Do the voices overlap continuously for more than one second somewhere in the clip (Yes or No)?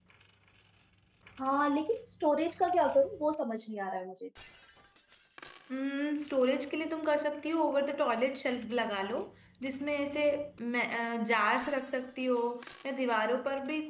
No